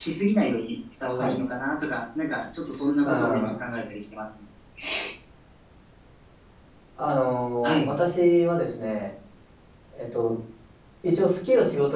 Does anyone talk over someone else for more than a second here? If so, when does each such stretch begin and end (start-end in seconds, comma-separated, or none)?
none